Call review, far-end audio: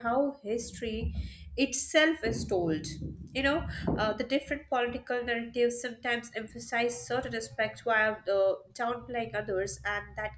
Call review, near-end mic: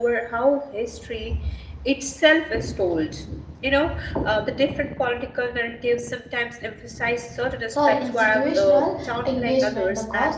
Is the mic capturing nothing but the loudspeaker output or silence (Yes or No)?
No